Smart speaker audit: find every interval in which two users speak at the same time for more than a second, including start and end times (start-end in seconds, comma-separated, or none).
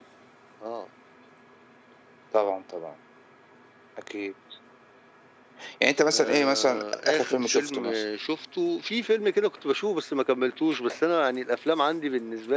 6.1-8.0